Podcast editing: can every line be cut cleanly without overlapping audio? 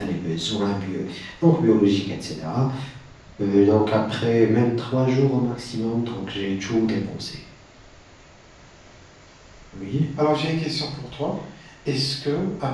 Yes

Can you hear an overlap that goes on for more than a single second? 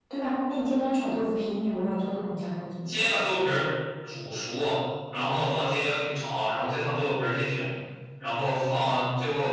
No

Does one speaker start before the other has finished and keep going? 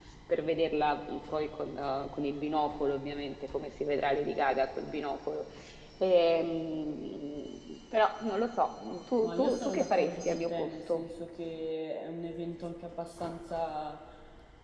Yes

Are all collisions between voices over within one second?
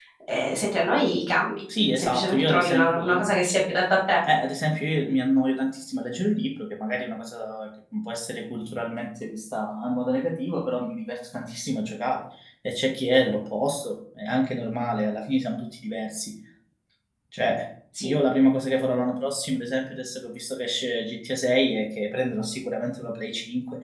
No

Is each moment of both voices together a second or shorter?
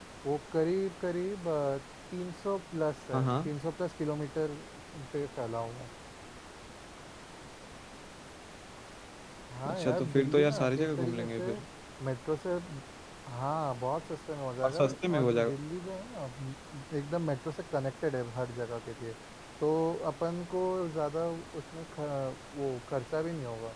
No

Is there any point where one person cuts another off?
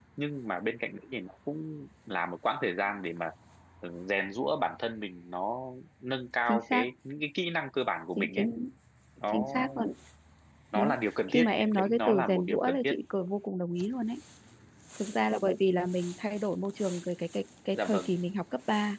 Yes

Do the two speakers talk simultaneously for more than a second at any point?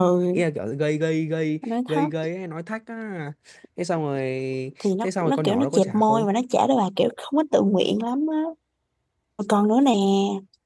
Yes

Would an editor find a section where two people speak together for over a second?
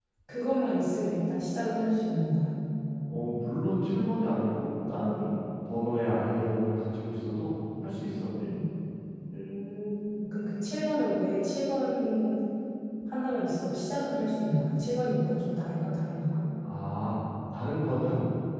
No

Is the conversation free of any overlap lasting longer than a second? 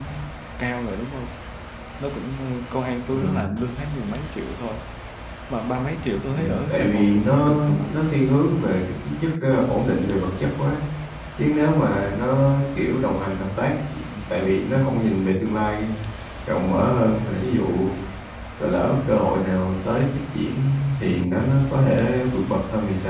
No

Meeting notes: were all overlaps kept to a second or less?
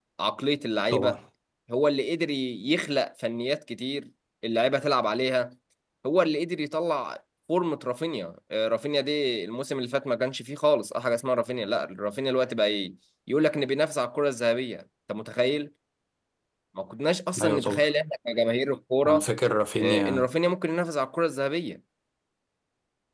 Yes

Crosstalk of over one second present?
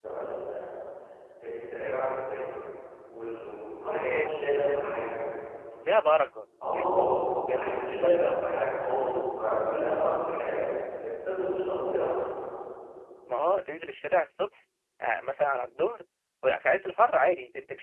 Yes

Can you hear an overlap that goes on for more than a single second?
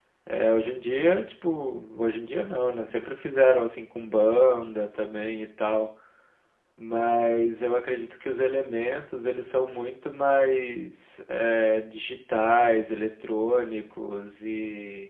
No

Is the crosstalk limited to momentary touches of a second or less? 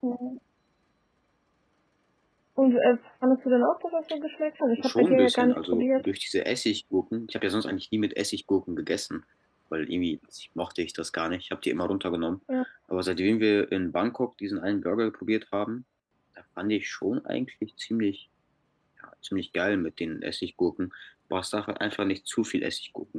No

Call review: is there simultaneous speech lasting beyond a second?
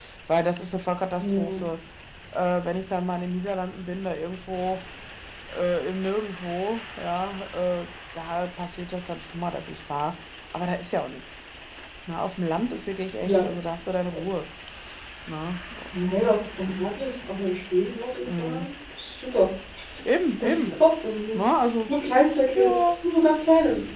No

